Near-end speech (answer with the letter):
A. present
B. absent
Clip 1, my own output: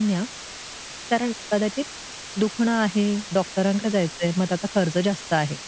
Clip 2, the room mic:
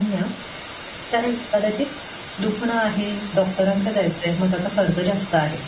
B